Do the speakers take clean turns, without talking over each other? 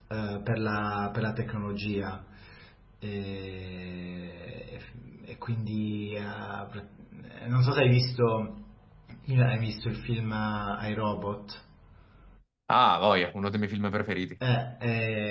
Yes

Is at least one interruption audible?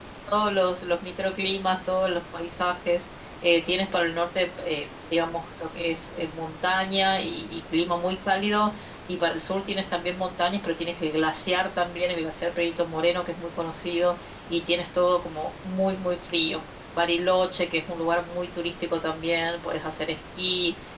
No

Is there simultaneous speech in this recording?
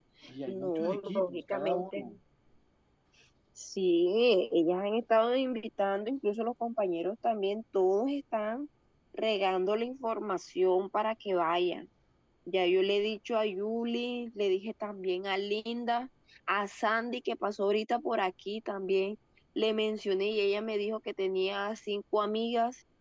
Yes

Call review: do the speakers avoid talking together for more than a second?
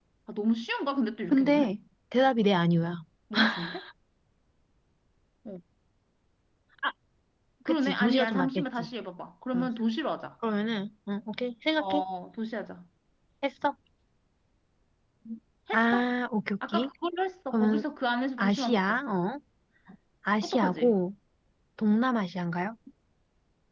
No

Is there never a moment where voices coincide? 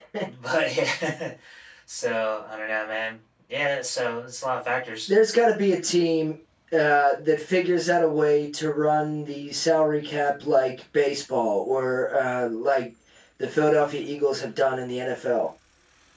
Yes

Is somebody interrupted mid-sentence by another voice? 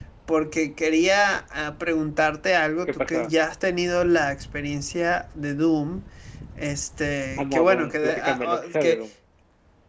Yes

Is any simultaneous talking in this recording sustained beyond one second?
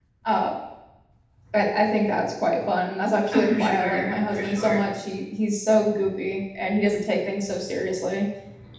Yes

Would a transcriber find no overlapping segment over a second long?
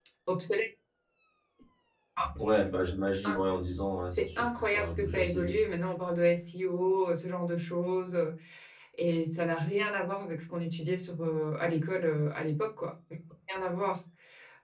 No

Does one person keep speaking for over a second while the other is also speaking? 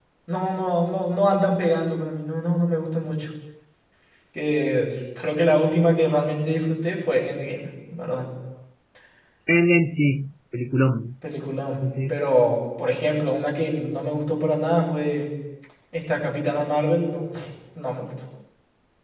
No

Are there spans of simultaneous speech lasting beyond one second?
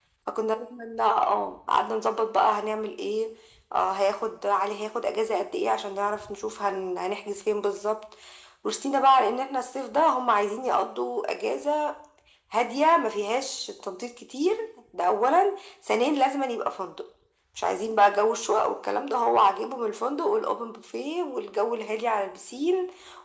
No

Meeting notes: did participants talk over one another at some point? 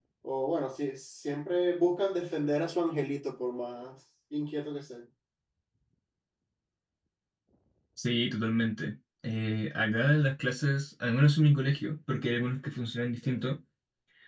No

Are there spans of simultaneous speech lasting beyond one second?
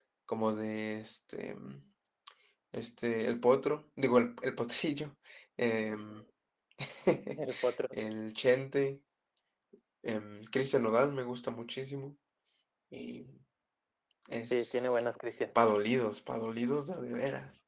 No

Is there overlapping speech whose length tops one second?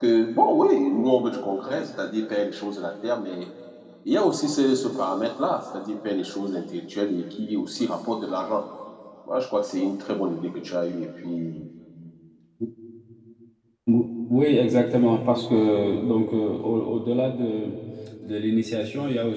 No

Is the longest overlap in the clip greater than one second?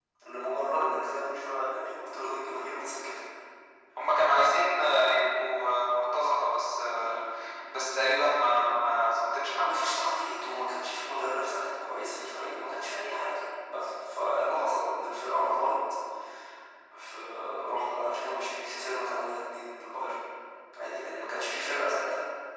No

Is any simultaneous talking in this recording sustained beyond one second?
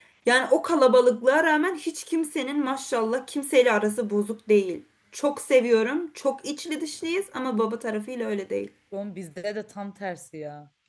No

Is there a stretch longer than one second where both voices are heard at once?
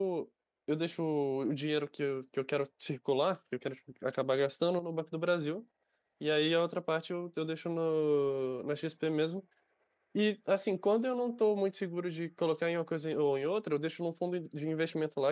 No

